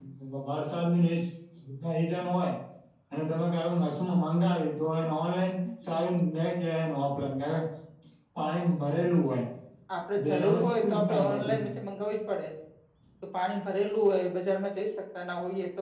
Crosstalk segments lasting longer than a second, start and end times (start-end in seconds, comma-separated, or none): 10.2-11.5